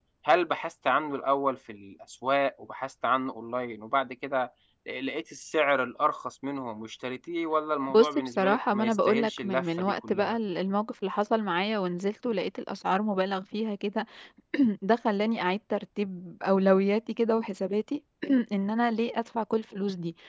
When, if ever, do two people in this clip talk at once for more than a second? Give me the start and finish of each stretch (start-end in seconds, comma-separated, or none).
7.9-10.4